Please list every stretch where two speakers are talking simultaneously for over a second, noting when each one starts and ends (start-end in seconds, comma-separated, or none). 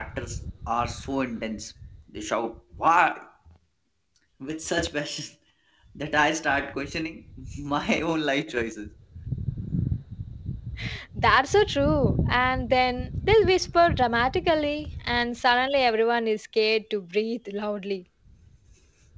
none